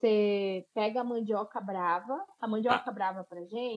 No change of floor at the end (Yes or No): Yes